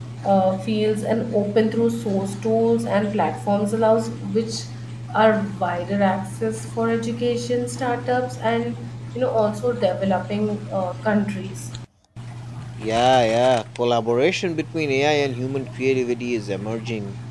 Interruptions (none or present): none